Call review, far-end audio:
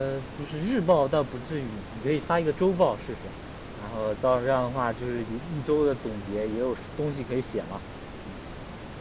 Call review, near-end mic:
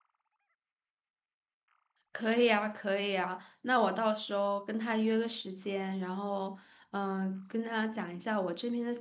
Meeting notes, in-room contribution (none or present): present